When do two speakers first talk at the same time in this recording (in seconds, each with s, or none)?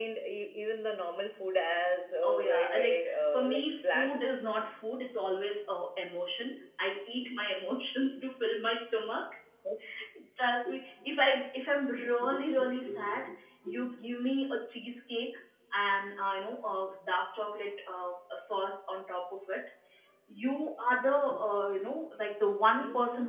2.2 s